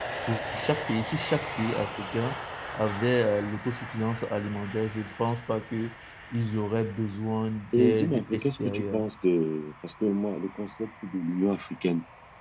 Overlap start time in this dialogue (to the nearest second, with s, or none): 8 s